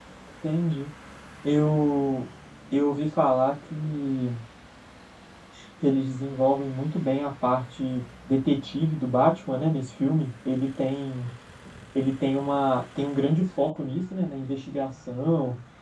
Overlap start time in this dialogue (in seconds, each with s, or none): none